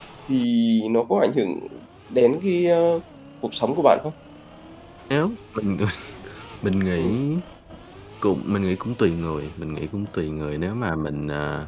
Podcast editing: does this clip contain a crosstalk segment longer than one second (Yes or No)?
No